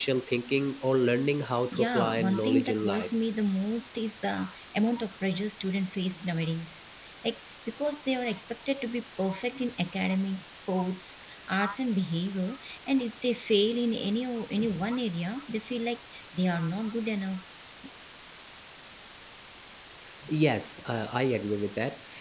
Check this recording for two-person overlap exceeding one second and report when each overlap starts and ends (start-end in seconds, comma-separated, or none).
1.7-3.1